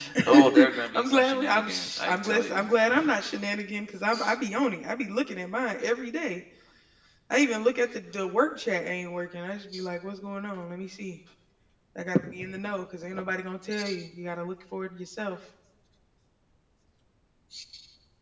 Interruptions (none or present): present